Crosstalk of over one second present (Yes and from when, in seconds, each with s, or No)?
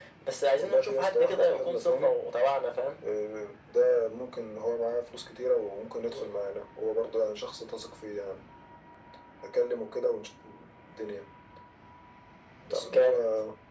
Yes, from 0.6 s